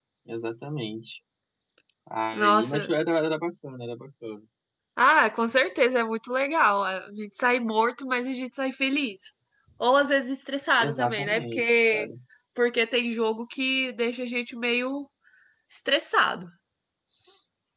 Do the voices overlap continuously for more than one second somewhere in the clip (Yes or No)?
Yes